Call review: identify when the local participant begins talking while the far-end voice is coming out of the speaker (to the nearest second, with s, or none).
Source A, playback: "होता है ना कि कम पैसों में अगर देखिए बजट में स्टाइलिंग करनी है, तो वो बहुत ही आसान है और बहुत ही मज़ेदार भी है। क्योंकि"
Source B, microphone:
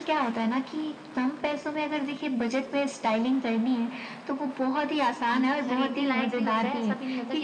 5 s